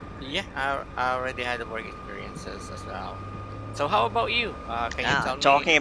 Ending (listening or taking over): taking over